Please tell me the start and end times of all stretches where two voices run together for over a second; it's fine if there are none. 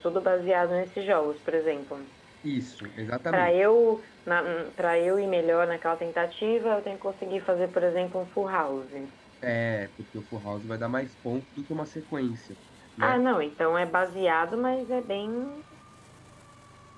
none

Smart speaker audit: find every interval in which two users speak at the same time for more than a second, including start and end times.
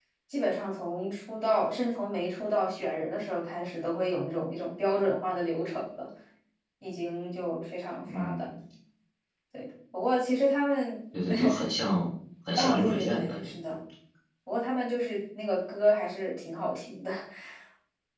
12.5-13.7

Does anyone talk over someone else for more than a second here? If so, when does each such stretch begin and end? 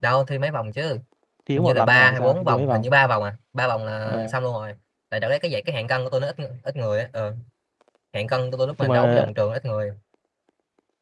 1.6-2.9

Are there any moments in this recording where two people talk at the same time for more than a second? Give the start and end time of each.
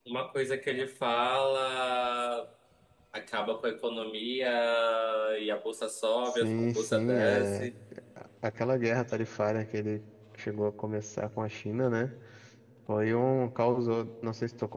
6.3-7.7

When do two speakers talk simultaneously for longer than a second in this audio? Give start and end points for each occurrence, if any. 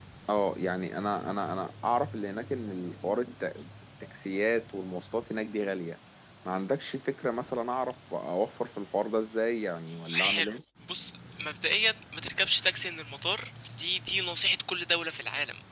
none

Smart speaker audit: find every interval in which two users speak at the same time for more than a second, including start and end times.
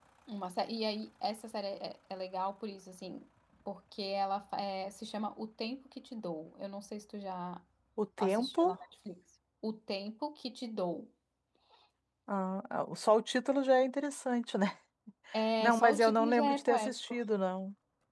15.6-17.1

